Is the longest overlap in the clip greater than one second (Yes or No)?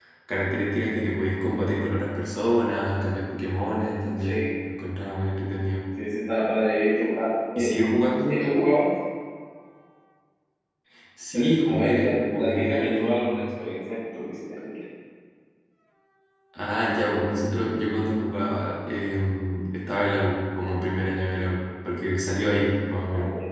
Yes